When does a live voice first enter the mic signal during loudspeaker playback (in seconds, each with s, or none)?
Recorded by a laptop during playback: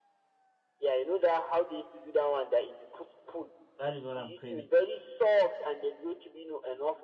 3.8 s